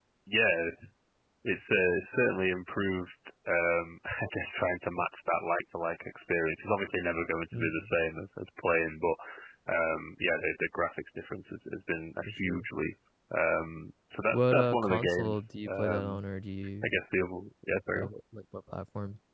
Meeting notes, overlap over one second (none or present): present